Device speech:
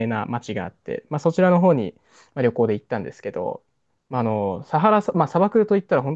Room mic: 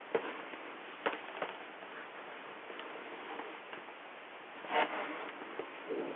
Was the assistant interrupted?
No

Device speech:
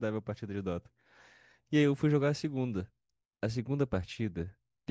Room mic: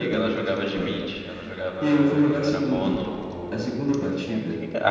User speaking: Yes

